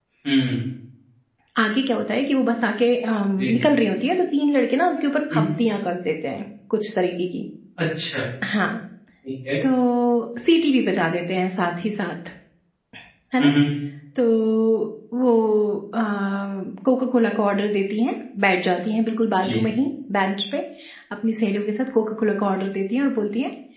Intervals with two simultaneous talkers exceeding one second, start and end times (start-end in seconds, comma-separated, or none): none